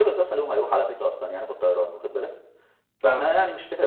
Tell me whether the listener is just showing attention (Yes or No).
Yes